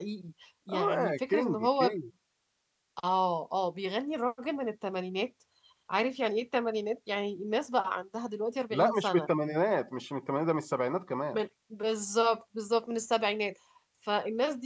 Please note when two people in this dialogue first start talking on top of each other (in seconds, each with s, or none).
0.7 s